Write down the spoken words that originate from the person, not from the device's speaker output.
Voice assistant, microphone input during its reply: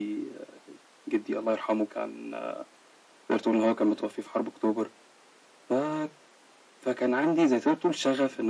none

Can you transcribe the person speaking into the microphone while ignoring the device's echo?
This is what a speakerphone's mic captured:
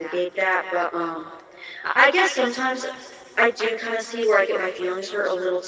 none

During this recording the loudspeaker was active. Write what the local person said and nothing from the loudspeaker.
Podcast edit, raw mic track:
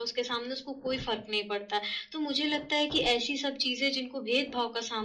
none

